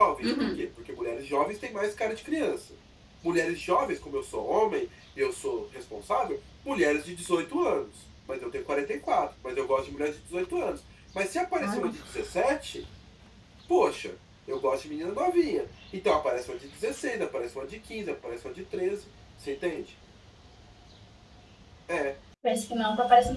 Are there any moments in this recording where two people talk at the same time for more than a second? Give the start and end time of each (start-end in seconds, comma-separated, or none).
none